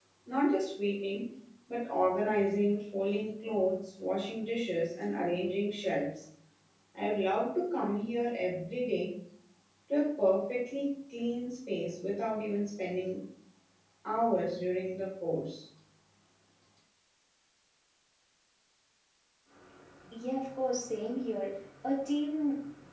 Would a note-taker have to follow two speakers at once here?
No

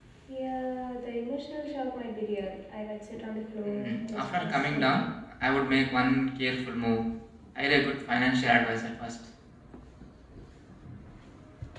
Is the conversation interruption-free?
No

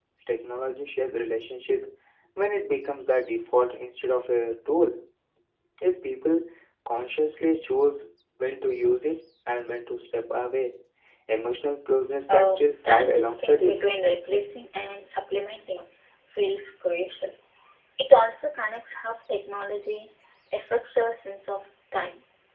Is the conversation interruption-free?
No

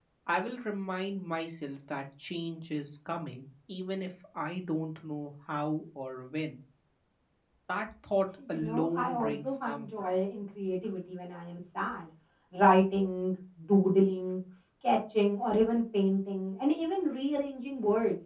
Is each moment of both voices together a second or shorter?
No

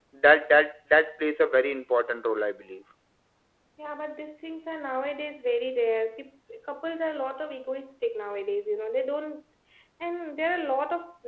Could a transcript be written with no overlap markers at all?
Yes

